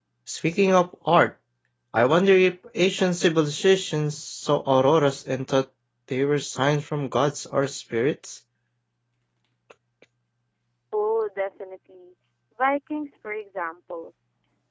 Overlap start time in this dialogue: none

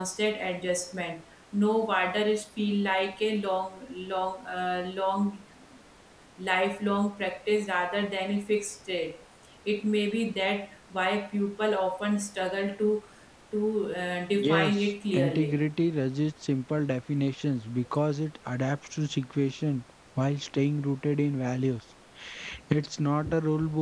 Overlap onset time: 14.4 s

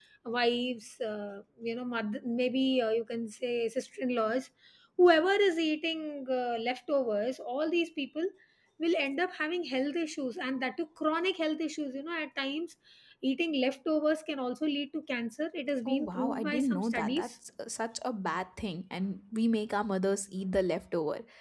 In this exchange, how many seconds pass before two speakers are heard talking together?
15.8 s

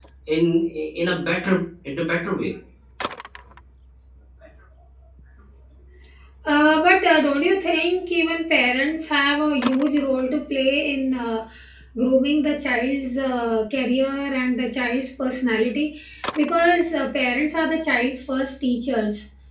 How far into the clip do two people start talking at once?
none

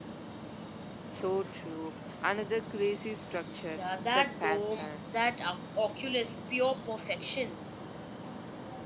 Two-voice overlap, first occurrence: 3.8 s

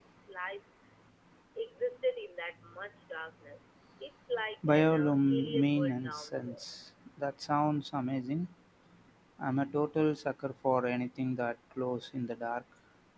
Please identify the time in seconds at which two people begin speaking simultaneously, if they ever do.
4.6 s

